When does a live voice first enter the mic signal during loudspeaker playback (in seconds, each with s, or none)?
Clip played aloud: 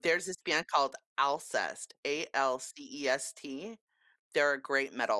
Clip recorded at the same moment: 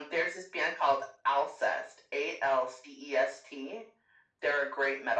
none